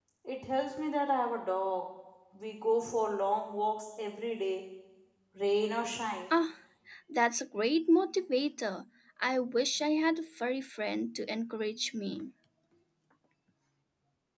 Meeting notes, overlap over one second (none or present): none